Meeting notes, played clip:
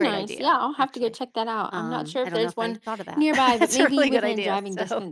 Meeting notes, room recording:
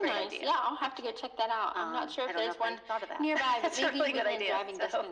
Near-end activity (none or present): none